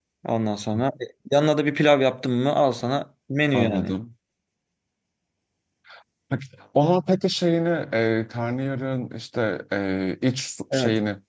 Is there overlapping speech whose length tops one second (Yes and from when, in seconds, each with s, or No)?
No